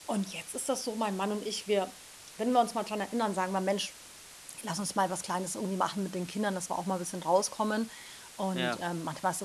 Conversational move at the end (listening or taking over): listening